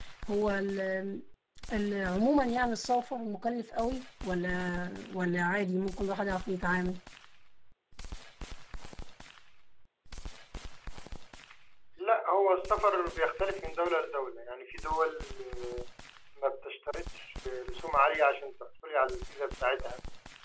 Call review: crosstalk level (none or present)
none